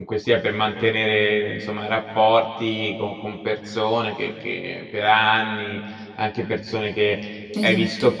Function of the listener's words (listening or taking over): listening